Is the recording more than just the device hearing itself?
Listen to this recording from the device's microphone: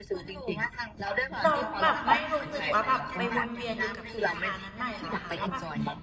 Yes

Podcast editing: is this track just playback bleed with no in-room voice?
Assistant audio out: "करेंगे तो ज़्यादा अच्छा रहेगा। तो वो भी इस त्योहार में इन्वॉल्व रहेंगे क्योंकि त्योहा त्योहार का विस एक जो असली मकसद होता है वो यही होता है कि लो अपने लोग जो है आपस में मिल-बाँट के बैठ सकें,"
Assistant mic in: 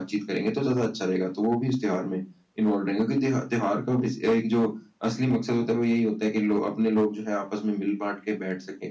Yes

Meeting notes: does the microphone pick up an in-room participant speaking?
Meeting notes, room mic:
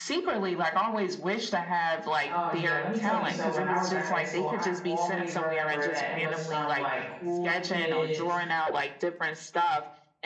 Yes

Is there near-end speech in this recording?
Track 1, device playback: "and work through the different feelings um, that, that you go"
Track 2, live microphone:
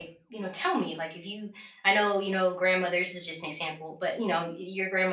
Yes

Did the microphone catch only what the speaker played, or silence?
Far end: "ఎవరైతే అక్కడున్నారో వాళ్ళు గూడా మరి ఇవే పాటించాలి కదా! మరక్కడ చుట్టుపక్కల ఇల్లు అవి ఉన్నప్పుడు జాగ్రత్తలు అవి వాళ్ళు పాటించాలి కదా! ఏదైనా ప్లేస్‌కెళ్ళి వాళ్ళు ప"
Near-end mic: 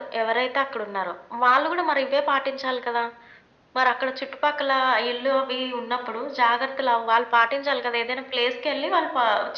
Yes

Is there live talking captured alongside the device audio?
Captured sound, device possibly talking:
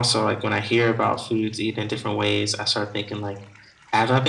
No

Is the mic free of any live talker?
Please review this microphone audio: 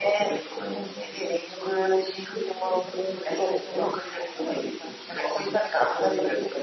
Yes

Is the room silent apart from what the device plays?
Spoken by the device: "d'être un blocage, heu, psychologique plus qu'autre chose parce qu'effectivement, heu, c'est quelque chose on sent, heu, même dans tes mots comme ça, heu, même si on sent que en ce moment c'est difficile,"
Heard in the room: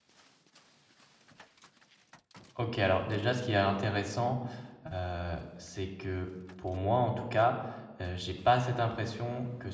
No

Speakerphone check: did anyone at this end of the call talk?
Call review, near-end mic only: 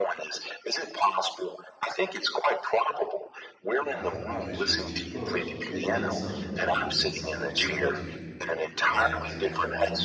Yes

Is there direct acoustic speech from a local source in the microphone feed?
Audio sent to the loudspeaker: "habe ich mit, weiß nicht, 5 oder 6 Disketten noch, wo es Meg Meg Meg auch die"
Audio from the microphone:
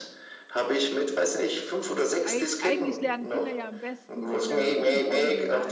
Yes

